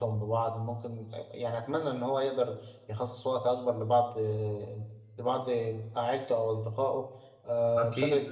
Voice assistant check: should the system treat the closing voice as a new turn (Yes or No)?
Yes